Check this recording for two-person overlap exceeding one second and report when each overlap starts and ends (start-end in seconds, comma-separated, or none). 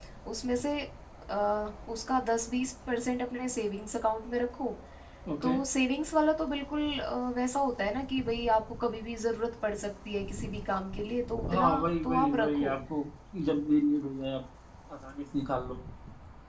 11.5-12.7